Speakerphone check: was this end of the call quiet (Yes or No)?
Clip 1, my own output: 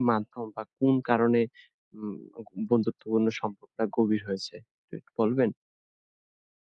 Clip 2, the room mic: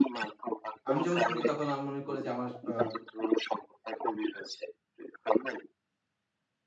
No